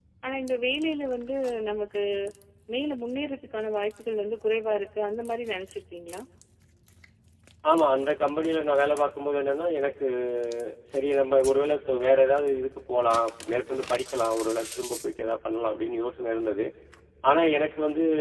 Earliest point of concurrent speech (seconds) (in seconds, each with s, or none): none